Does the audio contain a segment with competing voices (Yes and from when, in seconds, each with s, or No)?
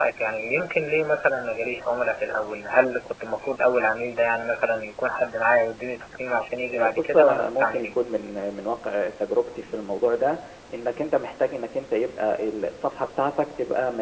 Yes, from 6.7 s